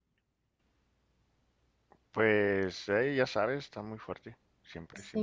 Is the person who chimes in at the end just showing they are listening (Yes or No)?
No